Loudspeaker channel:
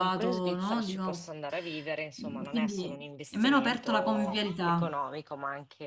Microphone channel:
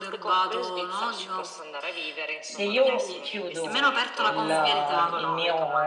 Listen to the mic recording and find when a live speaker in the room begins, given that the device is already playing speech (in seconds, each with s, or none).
2.4 s